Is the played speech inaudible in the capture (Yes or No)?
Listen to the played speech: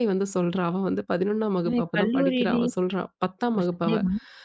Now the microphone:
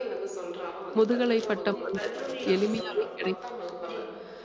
No